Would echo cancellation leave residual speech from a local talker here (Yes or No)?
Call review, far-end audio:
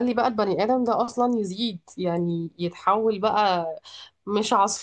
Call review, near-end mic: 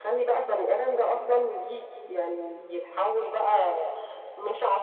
No